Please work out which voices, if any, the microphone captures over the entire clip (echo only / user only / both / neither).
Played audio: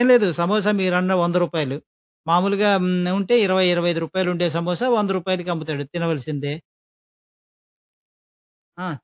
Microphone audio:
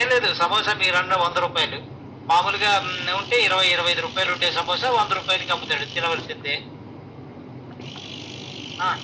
echo only